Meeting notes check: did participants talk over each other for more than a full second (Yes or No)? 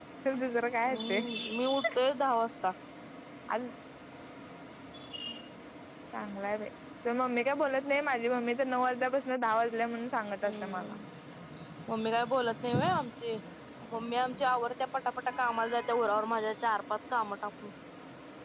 No